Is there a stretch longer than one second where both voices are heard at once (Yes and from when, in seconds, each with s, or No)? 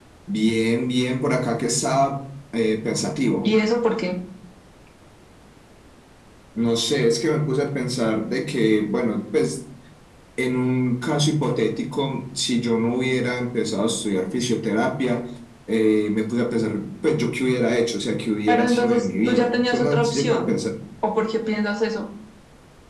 Yes, from 18.5 s